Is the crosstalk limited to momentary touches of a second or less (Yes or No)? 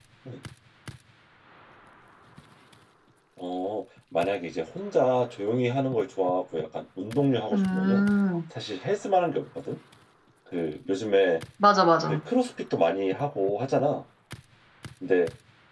Yes